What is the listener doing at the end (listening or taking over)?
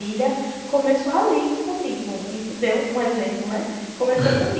listening